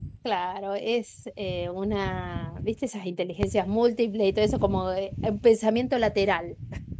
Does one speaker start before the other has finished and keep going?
No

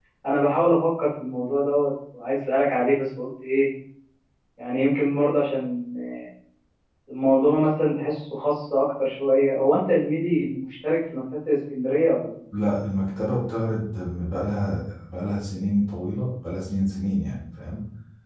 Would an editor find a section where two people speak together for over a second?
No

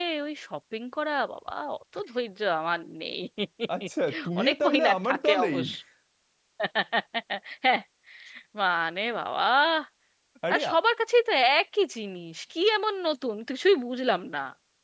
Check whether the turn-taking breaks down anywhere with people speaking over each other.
Yes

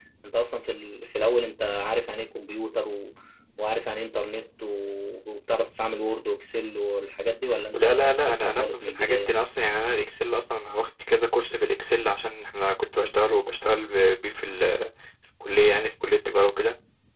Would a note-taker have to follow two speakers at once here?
Yes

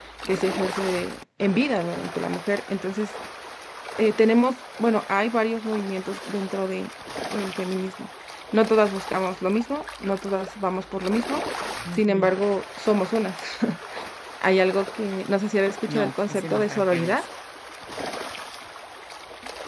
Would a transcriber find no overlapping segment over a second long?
No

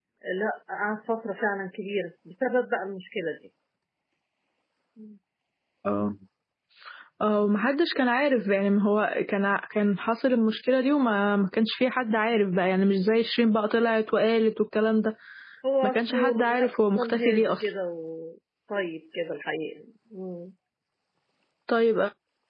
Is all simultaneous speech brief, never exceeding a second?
No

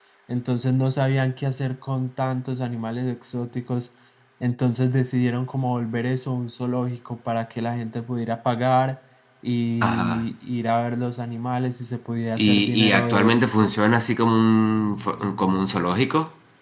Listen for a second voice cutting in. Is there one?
Yes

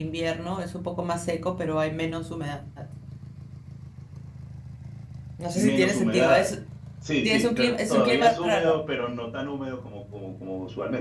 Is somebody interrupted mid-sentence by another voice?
Yes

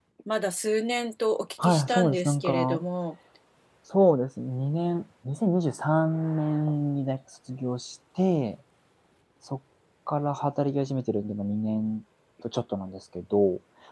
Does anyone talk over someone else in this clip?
Yes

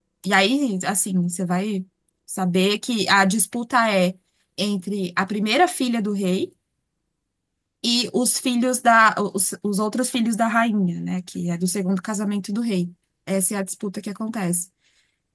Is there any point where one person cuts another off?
No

